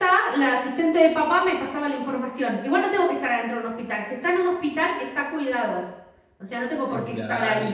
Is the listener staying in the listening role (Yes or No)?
No